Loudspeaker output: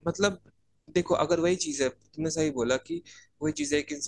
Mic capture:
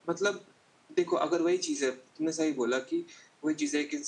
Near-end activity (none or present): none